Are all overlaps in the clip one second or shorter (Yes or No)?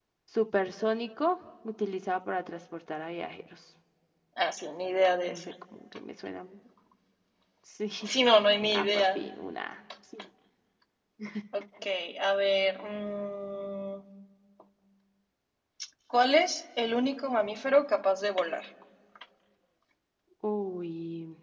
Yes